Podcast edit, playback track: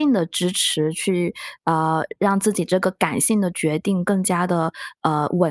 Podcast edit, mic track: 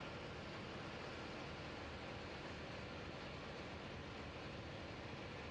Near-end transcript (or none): none